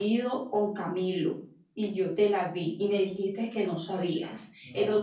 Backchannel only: Yes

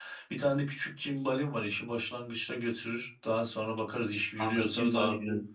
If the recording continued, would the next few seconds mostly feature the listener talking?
Yes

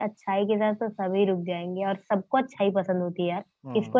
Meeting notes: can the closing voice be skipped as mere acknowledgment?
Yes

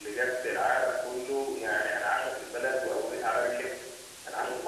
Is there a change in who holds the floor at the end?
No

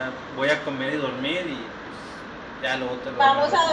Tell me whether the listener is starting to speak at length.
Yes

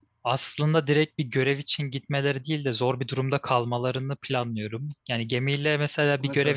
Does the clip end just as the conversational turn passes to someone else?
No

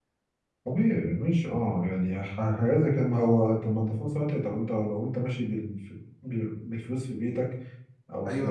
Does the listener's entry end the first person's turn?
Yes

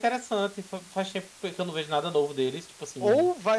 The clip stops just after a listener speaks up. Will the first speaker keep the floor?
No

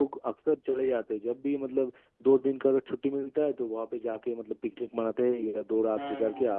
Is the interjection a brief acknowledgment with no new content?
Yes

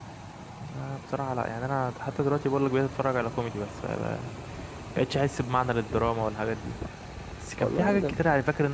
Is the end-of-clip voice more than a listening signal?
No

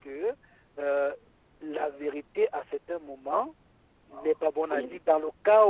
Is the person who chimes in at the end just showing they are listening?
Yes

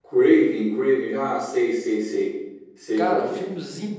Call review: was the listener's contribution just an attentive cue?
No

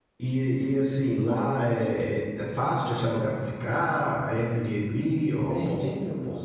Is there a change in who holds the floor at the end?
Yes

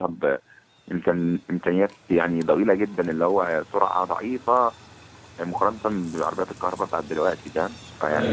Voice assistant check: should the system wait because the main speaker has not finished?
Yes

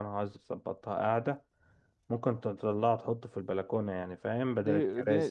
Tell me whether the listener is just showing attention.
No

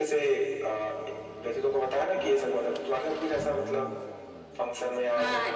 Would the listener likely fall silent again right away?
No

